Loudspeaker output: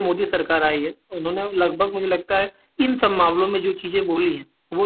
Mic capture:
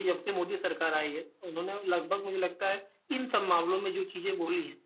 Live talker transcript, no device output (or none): none